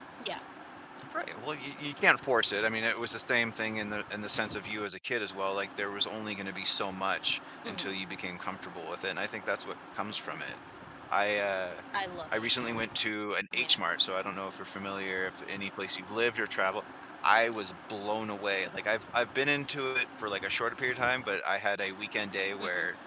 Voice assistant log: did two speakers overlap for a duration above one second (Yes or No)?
No